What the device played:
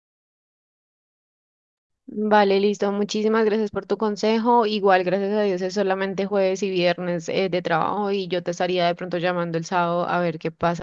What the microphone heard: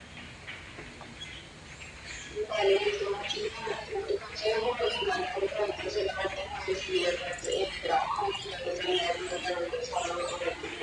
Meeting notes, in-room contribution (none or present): none